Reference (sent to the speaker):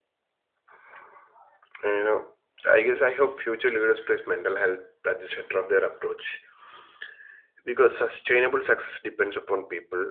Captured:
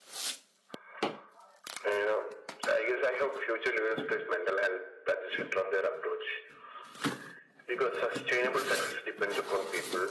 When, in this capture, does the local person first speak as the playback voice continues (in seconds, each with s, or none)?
none